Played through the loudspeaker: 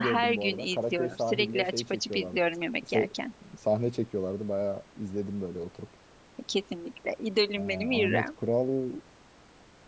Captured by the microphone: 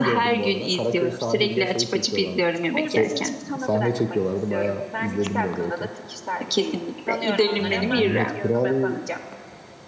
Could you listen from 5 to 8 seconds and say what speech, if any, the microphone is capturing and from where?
both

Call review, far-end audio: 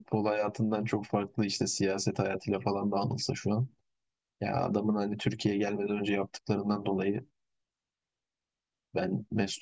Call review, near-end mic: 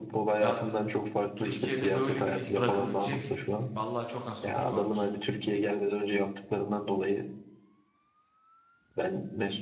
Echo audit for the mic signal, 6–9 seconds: echo only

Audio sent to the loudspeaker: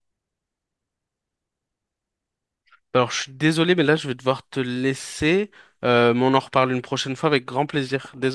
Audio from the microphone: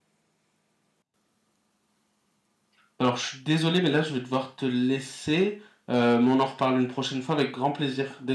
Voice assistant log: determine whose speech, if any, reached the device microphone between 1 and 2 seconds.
neither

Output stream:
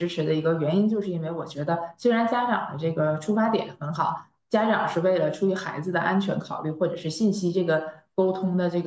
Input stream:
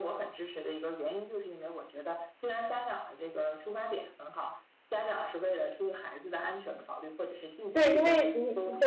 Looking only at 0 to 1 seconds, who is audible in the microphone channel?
echo only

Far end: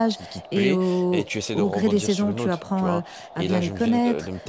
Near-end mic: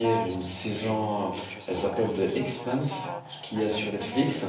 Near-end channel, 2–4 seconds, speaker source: both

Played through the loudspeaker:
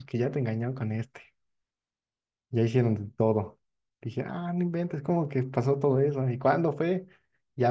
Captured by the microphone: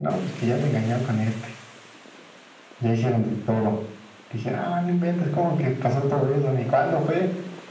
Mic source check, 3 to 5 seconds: echo only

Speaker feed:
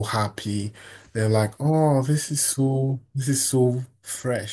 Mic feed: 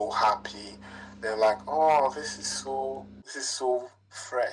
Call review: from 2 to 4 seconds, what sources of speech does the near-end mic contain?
echo only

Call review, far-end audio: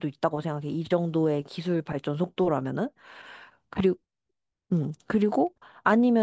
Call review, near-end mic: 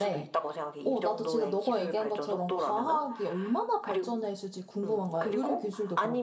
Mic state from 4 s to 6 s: both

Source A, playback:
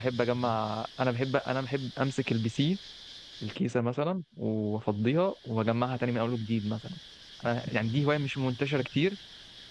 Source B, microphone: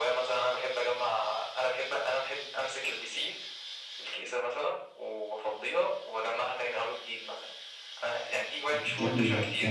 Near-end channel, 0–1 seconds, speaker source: echo only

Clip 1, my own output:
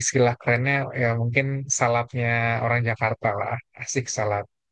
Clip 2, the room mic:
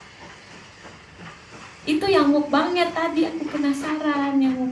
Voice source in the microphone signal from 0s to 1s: neither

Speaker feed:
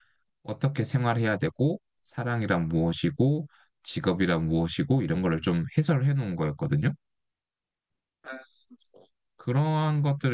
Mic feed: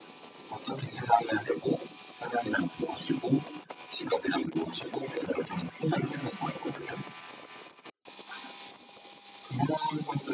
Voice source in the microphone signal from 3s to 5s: echo only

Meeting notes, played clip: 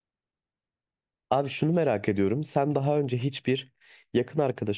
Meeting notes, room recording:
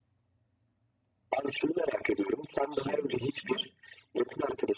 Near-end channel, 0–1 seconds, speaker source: neither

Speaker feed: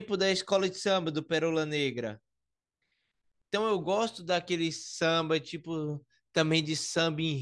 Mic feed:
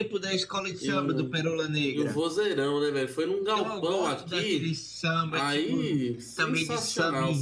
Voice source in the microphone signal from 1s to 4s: both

